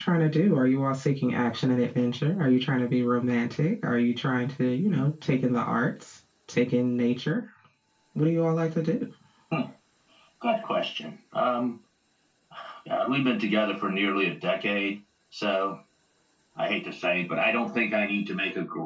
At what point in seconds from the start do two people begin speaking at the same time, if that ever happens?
none

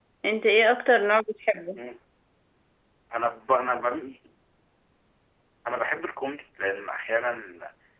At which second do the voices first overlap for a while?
none

